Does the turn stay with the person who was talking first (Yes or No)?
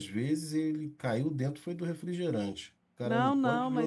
No